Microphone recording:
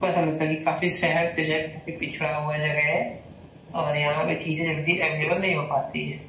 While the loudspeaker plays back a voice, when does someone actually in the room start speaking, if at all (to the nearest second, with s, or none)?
none